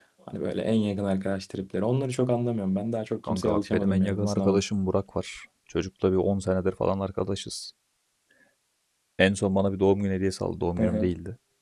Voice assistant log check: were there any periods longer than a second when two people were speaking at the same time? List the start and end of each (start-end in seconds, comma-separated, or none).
3.2-4.6